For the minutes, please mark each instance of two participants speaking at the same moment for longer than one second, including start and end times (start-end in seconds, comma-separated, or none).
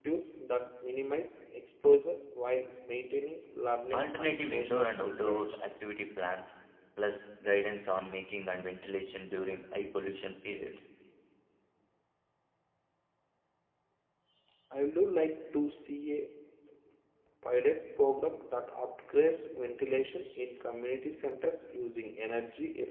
3.9-5.6